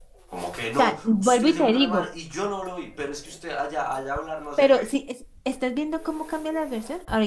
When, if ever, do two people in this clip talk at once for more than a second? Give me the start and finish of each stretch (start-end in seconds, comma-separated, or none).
0.8-2.0